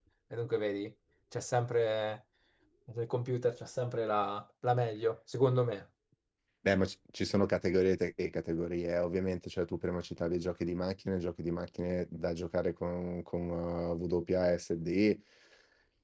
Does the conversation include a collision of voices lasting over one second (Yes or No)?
No